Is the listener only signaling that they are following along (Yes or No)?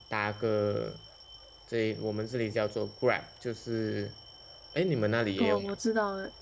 No